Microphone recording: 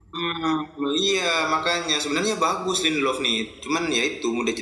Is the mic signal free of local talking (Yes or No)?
Yes